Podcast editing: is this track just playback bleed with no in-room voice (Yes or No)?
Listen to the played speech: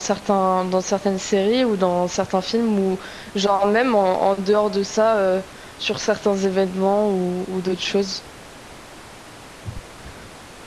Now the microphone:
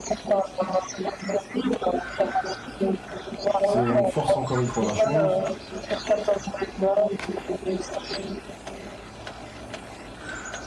No